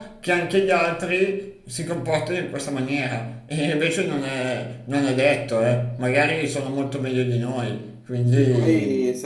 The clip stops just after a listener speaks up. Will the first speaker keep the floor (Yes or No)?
No